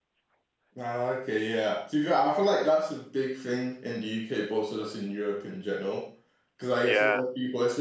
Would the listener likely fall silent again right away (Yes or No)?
Yes